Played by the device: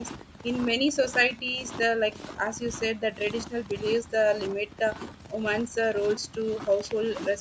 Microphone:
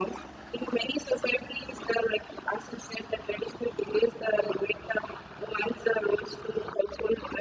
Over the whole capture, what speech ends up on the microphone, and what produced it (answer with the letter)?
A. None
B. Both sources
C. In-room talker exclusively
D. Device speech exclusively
D